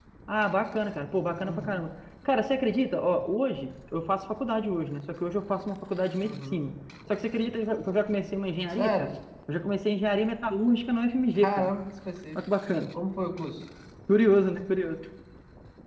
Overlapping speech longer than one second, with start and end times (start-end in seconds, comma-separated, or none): none